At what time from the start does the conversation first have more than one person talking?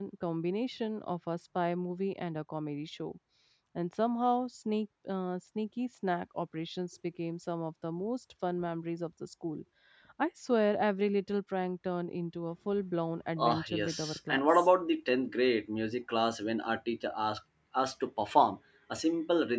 13.4 s

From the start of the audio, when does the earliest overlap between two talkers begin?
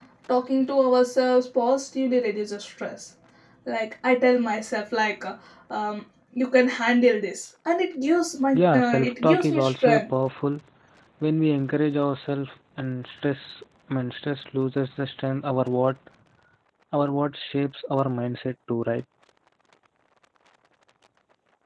8.5 s

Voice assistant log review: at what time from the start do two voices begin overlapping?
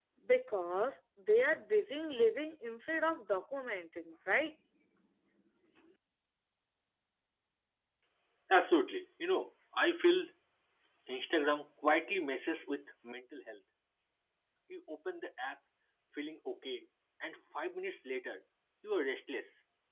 none

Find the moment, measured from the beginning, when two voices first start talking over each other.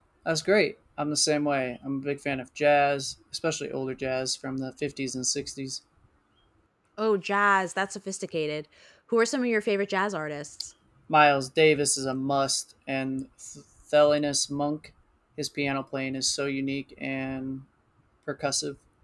none

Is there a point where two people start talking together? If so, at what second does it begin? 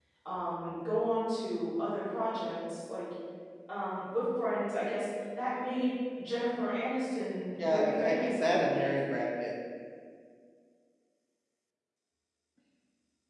7.6 s

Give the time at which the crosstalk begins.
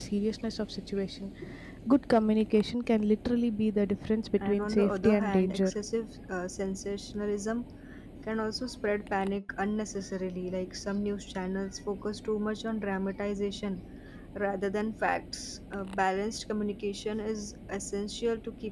4.4 s

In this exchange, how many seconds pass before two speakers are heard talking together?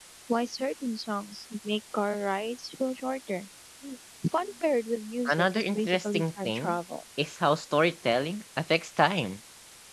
5.2 s

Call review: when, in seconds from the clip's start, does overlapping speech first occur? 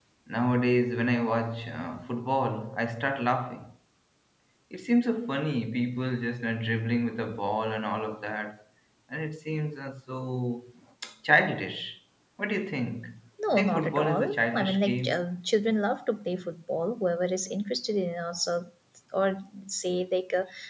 13.4 s

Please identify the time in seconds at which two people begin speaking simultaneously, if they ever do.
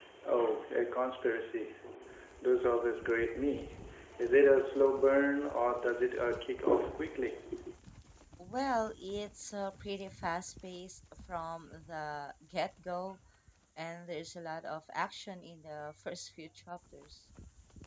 none

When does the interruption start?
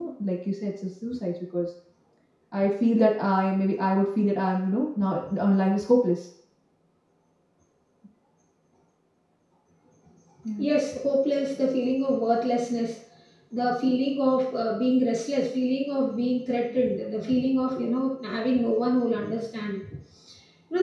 none

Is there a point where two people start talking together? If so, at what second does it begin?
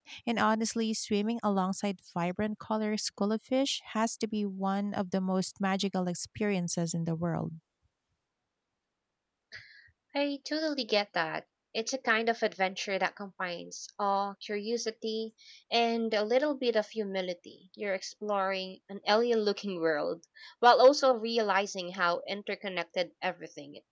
none

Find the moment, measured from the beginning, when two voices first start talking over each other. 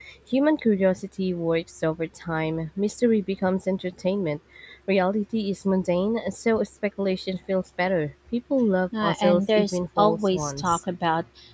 8.9 s

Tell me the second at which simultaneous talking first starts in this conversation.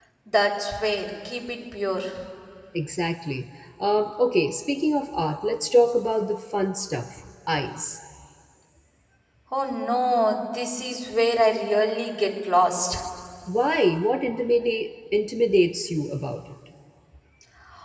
none

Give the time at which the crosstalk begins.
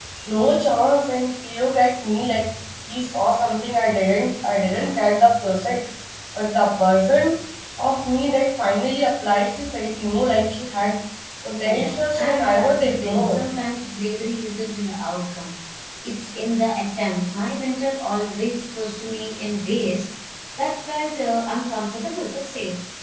11.6 s

